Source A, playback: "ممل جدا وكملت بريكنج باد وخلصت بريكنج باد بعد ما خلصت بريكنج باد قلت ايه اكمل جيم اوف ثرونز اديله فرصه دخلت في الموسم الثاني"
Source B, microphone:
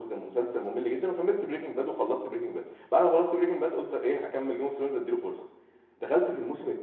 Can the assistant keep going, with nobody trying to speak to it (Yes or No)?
Yes